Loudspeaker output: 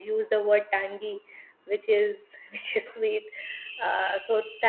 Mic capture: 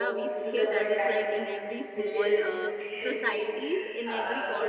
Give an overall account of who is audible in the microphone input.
both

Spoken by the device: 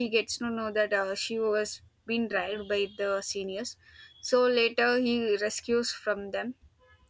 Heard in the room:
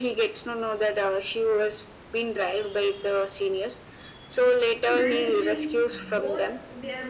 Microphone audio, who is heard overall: both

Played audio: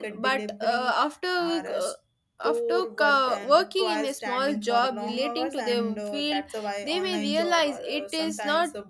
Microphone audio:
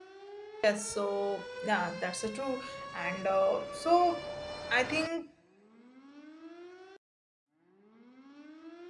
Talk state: user only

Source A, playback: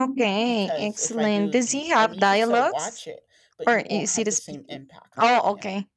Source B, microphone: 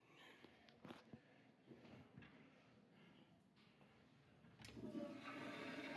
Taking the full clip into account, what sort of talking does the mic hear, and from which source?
neither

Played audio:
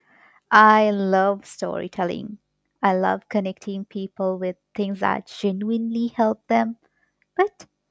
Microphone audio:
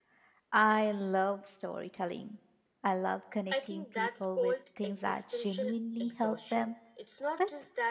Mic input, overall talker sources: both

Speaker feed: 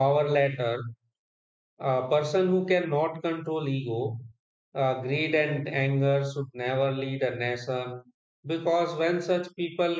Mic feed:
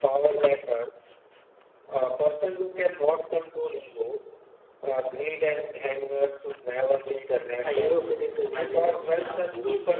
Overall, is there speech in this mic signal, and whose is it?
both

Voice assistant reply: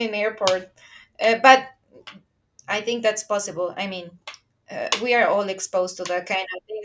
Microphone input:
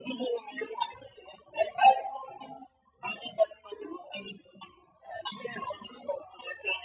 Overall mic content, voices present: echo only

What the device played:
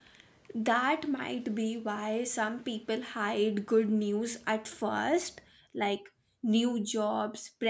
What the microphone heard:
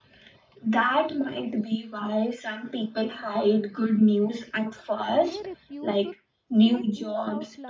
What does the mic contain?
both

